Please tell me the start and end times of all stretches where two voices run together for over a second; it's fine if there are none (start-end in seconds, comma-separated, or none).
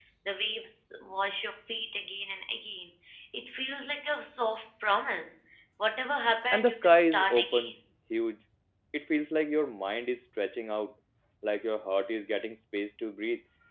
6.5-7.7